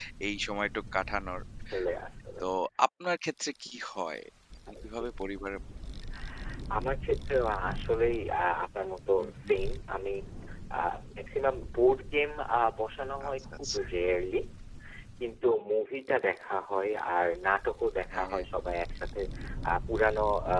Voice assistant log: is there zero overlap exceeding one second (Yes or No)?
Yes